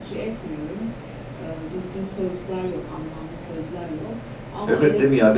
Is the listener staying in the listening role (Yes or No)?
No